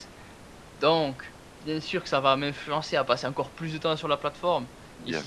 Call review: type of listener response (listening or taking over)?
listening